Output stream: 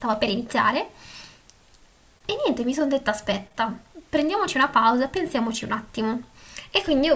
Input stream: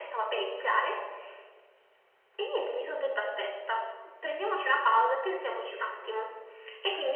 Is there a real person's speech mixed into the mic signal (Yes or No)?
No